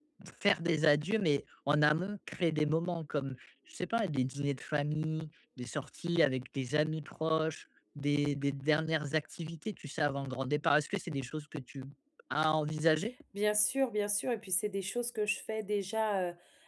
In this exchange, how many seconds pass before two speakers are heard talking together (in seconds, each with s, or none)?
none